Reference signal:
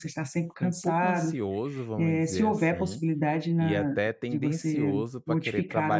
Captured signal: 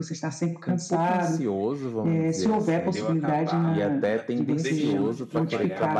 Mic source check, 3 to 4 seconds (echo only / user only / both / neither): both